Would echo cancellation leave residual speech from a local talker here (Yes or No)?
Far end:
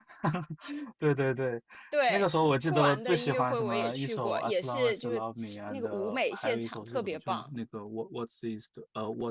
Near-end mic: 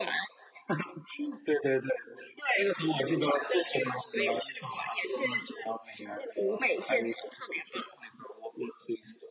No